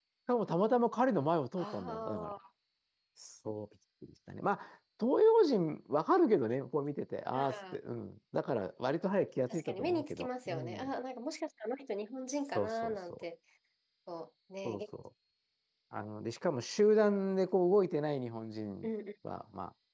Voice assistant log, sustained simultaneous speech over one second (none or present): present